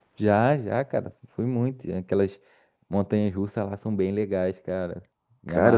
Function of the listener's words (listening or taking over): taking over